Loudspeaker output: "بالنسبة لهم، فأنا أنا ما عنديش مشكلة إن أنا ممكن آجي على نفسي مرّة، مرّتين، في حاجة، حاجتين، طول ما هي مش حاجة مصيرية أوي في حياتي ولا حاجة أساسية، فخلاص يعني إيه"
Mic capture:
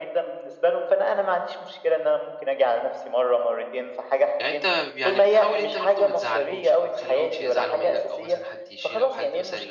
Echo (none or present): present